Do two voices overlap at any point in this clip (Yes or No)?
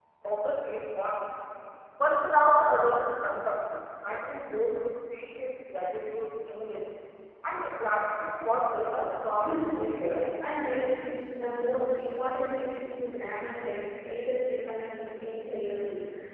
Yes